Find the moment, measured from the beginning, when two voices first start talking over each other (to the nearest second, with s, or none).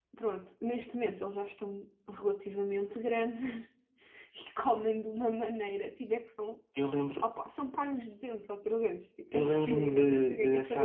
9 s